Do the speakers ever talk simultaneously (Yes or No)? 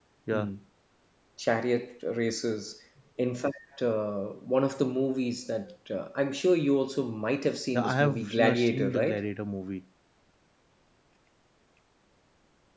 Yes